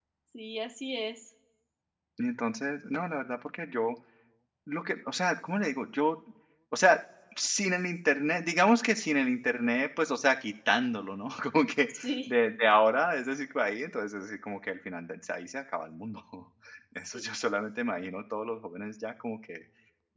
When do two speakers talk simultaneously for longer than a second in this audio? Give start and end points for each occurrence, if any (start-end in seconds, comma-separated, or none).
none